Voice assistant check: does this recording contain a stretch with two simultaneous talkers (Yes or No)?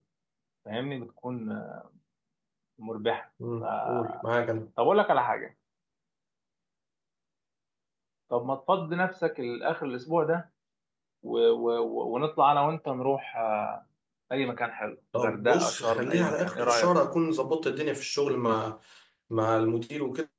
Yes